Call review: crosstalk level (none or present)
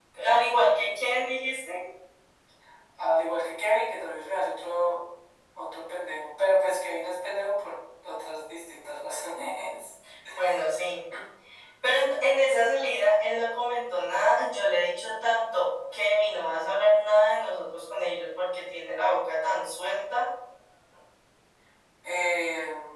none